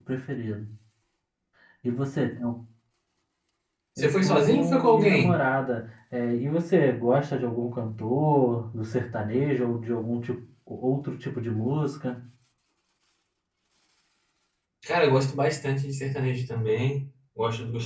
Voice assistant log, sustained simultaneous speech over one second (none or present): present